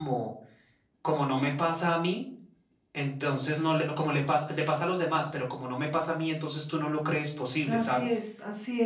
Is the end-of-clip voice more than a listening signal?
Yes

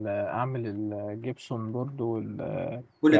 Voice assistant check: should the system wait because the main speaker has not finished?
Yes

